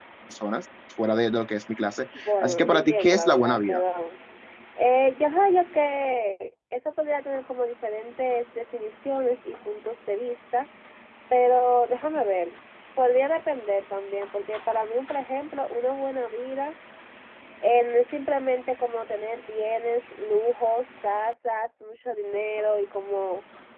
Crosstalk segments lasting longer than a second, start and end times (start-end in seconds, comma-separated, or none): 2.3-3.8